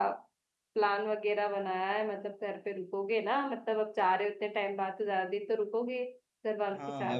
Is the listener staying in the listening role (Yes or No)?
No